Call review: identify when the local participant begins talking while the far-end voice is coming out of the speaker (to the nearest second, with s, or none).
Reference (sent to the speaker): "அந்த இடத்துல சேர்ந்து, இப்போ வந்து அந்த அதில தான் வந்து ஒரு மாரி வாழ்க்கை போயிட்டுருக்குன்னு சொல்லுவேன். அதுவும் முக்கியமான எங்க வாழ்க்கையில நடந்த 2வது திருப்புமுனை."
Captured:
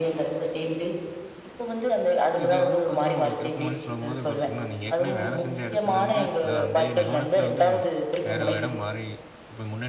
2 s